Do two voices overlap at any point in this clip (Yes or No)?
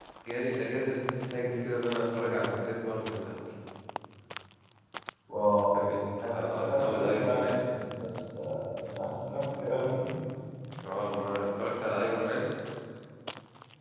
Yes